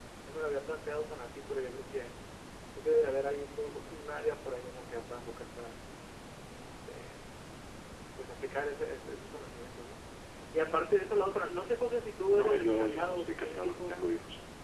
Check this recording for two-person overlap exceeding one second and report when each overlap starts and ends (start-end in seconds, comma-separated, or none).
12.3-13.9